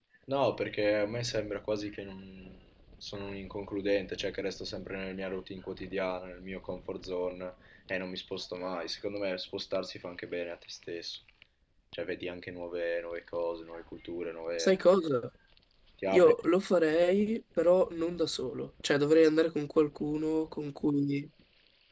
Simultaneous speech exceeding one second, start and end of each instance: none

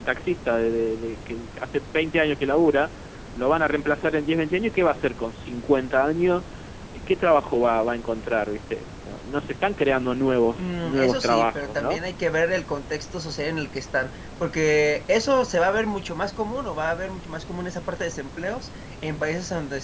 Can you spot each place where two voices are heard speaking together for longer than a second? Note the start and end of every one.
10.6-12.0

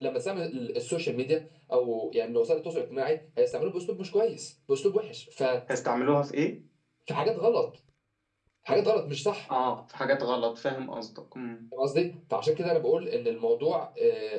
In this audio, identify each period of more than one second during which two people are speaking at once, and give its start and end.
none

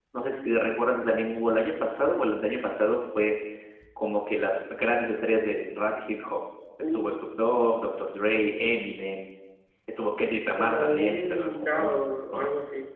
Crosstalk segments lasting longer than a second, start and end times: 10.6-12.0

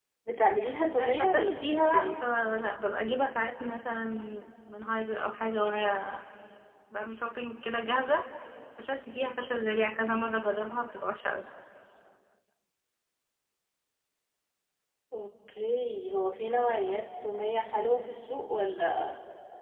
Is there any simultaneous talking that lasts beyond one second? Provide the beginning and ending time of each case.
1.0-2.2

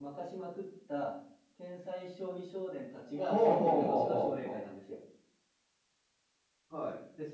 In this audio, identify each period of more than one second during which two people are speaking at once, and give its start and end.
3.2-4.6

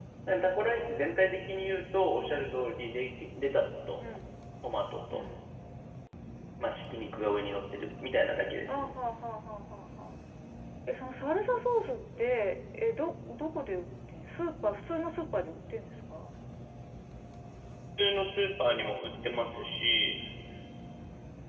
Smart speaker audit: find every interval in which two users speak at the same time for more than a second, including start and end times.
none

